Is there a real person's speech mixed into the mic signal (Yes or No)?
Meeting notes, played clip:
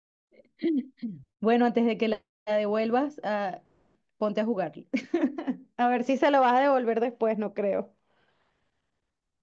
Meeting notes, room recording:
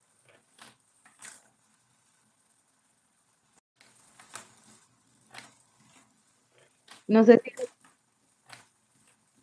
Yes